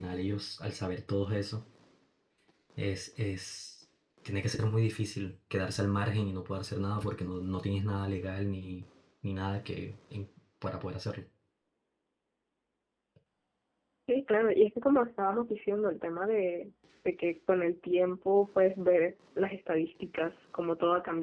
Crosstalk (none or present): none